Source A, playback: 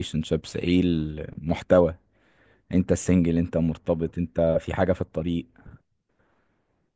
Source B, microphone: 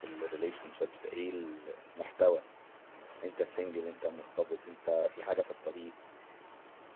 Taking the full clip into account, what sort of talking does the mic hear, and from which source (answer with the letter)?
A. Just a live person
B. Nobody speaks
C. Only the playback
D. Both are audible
C